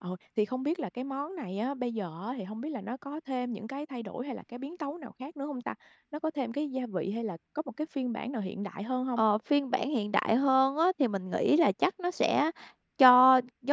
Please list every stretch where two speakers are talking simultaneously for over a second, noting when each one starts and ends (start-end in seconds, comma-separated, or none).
none